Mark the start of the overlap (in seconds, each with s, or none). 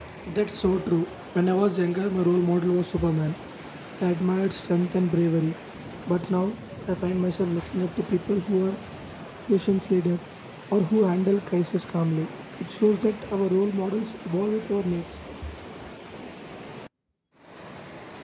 none